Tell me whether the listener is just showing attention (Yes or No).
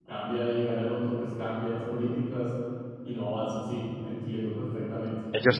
No